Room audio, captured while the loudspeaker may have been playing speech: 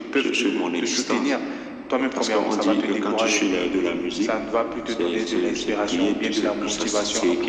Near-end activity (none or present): none